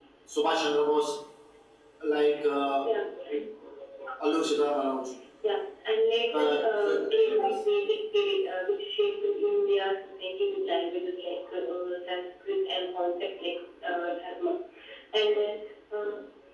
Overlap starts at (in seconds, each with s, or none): 6.3 s